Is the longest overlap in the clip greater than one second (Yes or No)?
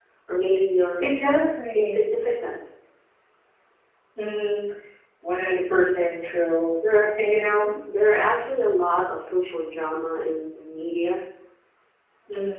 No